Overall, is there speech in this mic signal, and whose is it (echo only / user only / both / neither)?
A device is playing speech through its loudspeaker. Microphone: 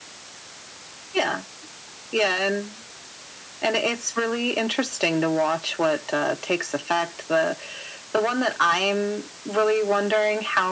echo only